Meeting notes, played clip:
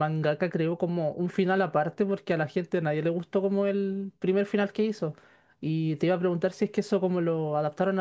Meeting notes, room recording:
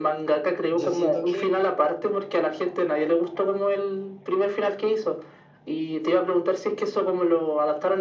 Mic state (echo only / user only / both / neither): both